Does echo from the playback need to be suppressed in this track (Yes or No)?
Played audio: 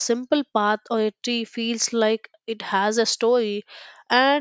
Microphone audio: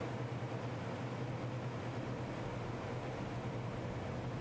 No